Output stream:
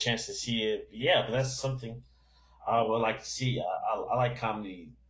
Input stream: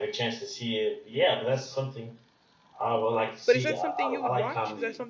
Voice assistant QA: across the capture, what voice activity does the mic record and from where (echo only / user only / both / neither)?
both